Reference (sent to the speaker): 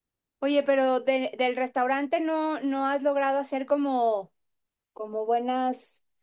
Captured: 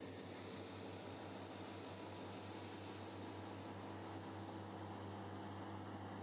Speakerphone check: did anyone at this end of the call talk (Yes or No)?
No